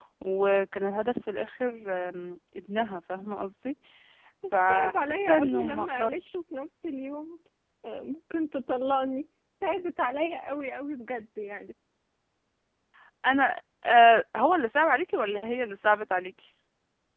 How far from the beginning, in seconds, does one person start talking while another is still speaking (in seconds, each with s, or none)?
4.7 s